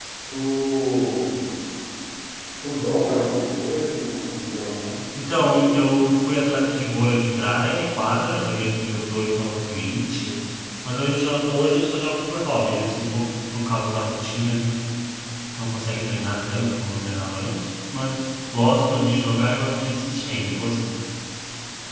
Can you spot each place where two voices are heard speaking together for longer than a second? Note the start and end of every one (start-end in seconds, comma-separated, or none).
none